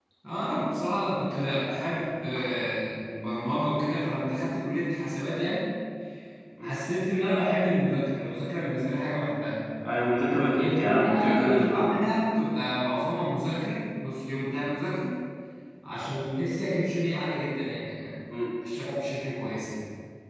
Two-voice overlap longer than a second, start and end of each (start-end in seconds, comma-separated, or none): 10.5-12.0